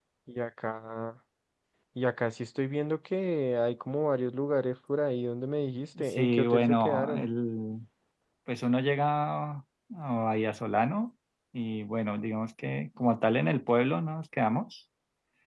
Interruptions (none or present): present